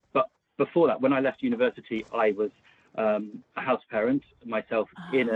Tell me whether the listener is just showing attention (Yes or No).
Yes